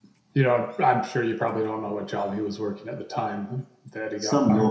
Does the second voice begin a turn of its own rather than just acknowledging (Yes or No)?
Yes